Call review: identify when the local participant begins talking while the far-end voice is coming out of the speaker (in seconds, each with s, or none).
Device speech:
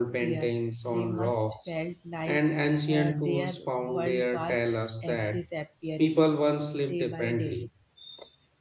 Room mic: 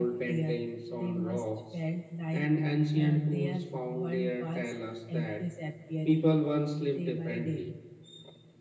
none